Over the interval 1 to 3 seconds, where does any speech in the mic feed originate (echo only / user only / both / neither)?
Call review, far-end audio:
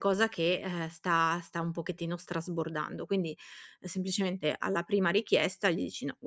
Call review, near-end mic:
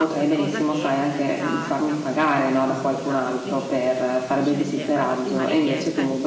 both